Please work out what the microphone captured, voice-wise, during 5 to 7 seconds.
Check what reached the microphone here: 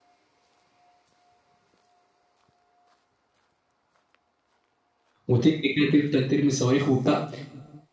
user only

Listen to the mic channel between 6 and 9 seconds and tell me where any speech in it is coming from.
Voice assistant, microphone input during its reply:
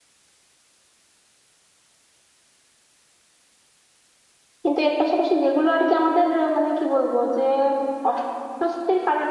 user only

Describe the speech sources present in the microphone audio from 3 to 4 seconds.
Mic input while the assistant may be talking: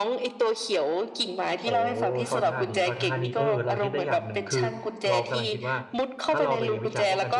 both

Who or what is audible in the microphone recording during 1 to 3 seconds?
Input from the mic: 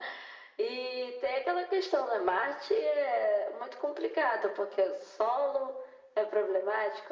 echo only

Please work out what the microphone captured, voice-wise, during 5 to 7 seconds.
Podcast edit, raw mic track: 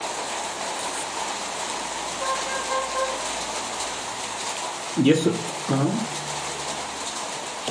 user only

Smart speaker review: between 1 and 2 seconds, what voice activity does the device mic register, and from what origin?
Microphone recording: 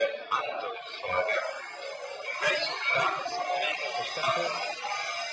echo only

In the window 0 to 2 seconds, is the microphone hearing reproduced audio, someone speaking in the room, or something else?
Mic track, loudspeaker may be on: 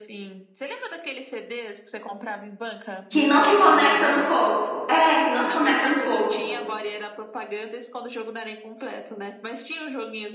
echo only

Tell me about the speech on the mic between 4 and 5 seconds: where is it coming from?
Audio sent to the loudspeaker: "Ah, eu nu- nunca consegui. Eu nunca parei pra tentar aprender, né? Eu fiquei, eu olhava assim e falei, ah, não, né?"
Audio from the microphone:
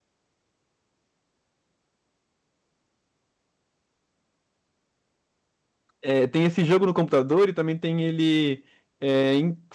neither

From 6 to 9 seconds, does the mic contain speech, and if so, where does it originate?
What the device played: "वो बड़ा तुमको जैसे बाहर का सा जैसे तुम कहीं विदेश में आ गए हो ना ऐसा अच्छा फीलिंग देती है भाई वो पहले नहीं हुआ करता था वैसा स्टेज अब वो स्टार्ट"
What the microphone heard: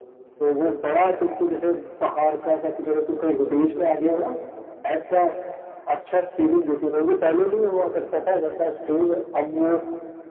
echo only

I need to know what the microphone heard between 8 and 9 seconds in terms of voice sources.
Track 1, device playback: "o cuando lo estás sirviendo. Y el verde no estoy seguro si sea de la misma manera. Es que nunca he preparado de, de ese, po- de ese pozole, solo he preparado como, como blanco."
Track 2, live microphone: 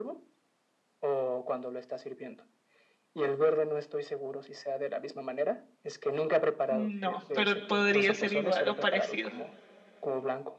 both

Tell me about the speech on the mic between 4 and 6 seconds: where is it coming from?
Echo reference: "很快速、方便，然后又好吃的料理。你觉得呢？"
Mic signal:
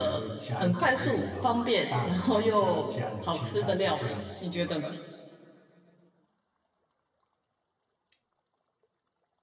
both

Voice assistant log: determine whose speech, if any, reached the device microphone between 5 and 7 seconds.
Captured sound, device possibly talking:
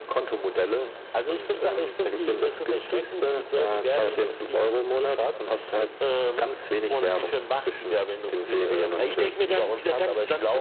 echo only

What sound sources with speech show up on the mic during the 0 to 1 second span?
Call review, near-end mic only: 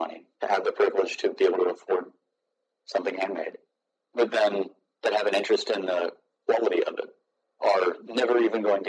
echo only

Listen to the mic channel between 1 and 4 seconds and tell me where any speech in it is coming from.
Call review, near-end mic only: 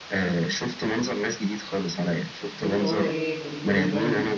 both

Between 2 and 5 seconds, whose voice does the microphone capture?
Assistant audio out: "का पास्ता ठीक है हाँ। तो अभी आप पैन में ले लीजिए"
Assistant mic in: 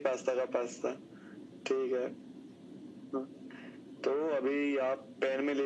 echo only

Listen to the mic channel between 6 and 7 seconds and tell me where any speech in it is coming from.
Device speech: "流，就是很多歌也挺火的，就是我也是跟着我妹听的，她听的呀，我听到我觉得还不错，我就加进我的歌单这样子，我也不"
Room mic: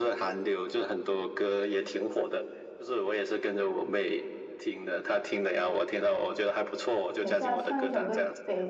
echo only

